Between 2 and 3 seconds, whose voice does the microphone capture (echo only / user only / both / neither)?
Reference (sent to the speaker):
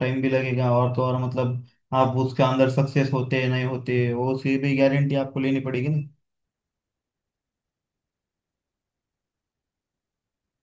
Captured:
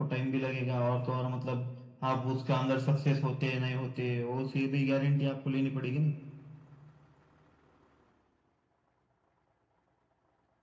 echo only